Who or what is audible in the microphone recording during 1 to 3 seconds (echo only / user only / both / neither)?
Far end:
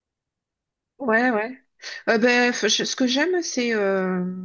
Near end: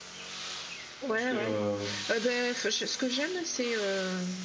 both